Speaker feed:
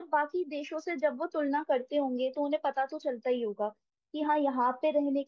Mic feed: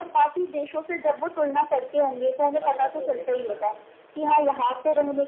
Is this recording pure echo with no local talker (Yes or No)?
No